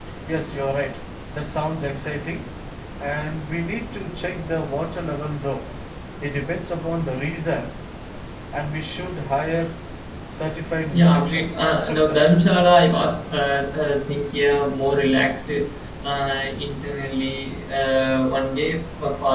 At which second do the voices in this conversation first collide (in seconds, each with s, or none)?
10.9 s